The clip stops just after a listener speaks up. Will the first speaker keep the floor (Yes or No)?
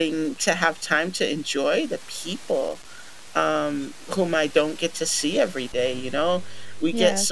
Yes